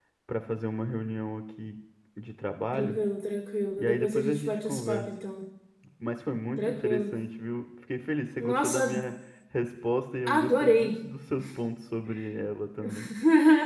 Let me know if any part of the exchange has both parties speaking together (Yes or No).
Yes